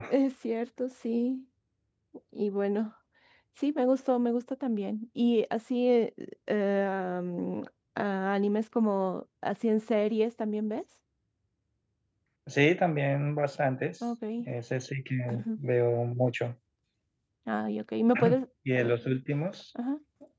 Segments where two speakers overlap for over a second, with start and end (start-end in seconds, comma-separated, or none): none